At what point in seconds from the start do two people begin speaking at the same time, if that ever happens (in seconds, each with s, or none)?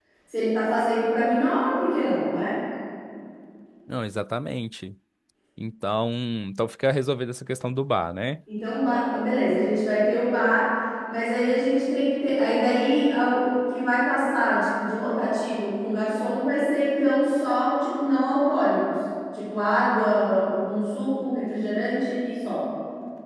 none